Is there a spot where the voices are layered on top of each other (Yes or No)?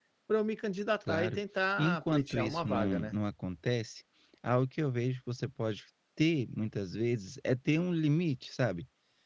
Yes